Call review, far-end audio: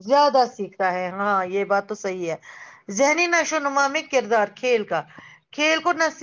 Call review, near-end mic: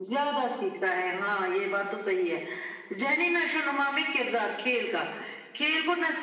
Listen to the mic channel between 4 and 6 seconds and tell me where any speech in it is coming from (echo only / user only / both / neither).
echo only